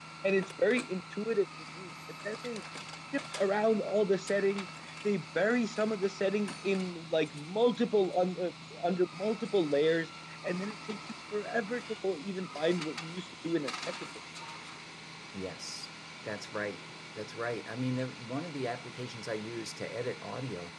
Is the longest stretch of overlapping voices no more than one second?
Yes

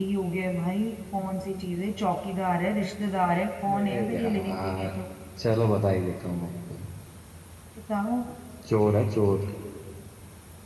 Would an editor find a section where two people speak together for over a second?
Yes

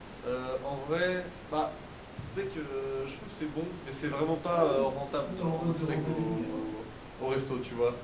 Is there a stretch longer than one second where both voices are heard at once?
Yes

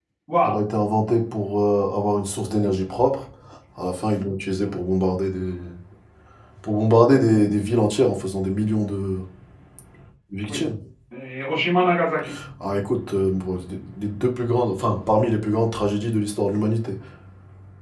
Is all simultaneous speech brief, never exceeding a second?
Yes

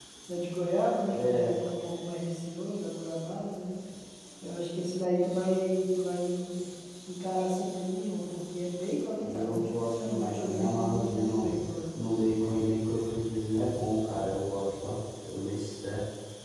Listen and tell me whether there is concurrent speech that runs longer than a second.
Yes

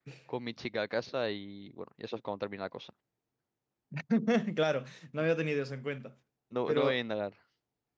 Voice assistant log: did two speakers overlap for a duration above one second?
No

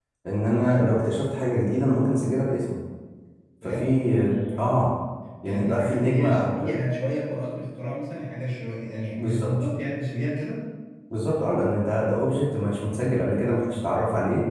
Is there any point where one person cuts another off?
Yes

